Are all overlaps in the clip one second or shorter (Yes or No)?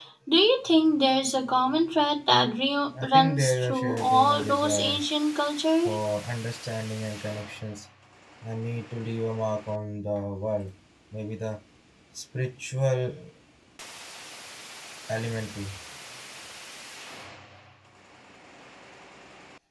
No